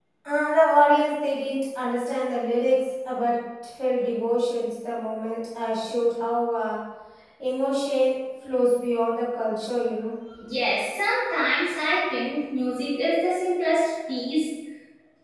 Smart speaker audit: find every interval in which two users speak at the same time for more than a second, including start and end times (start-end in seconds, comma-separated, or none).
none